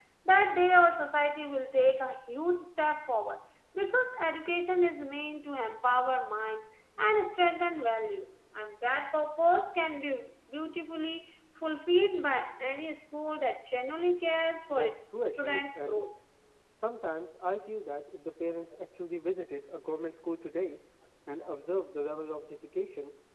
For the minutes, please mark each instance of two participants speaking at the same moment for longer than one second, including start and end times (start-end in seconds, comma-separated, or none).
14.7-16.0